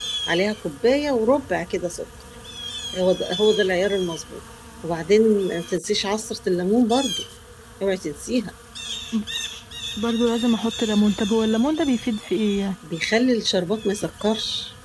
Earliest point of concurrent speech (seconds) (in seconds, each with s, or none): none